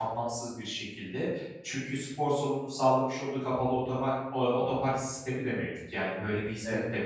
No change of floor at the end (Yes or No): Yes